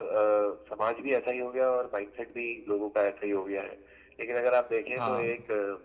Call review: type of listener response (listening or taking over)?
listening